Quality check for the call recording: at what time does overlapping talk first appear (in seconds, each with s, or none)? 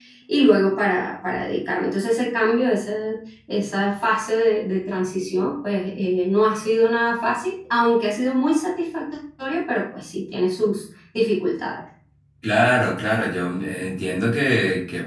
none